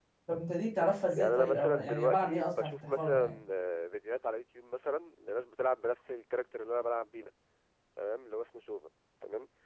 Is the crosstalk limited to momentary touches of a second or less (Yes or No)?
No